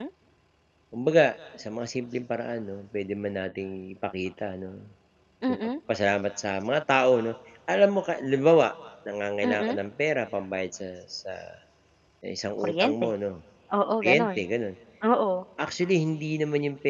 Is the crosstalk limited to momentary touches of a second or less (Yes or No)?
Yes